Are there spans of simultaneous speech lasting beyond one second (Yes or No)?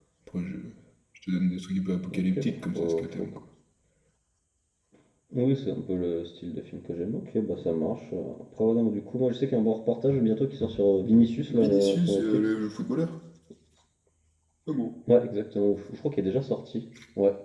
Yes